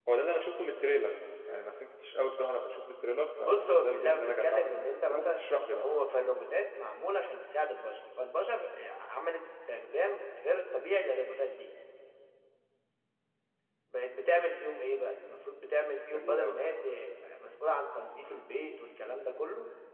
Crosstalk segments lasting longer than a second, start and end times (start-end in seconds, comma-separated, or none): 3.4-5.8